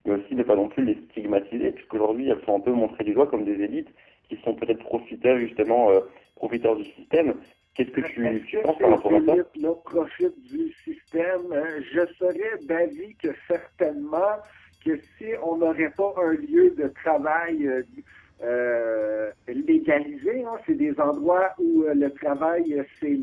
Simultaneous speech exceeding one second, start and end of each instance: 7.9-9.4

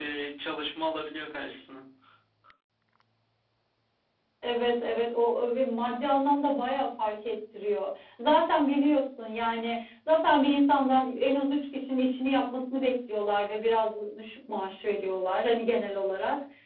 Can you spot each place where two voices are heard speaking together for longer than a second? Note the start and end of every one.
none

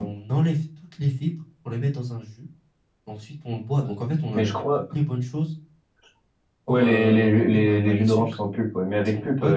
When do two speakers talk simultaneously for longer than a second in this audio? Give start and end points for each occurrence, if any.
6.7-8.2

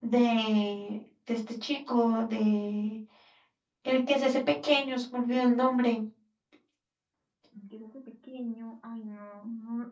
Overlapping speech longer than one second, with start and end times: none

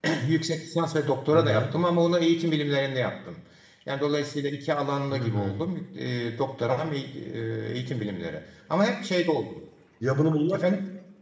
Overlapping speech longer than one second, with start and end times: none

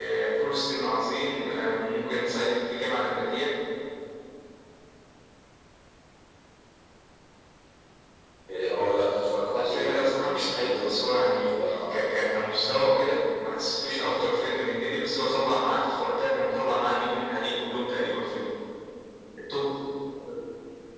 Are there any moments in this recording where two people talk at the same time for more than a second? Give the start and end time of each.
9.5-12.2

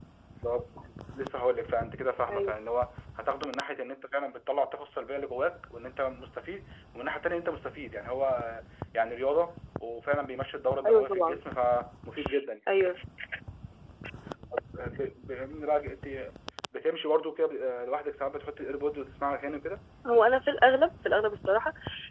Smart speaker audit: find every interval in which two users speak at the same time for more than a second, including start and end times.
none

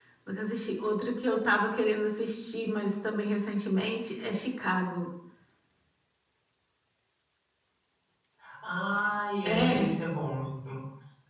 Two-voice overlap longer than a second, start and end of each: none

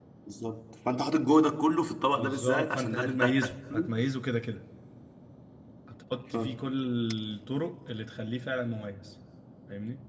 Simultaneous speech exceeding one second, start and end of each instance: 2.1-3.9

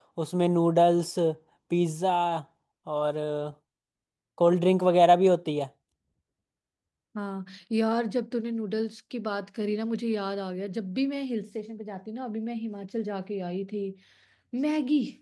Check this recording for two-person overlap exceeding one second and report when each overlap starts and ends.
none

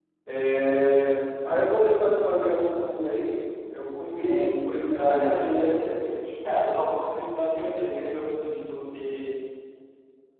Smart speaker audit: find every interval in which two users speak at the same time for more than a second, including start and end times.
4.1-5.9

